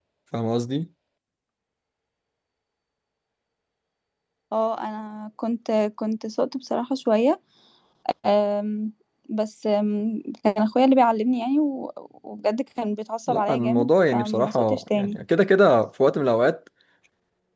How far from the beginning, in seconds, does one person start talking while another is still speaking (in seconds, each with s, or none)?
13.3 s